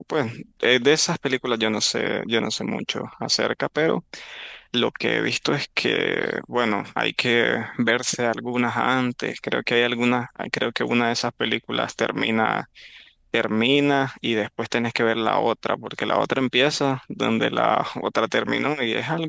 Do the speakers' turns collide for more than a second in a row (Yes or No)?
No